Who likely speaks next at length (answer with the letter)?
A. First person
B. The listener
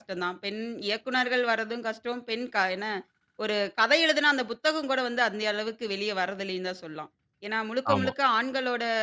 A